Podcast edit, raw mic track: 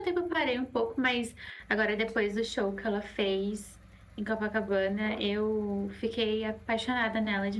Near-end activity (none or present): none